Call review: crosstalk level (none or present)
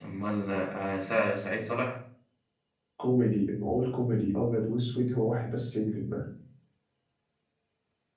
none